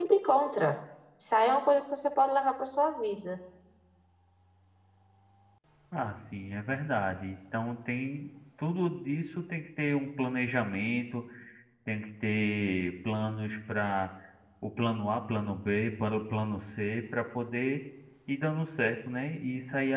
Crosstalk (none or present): none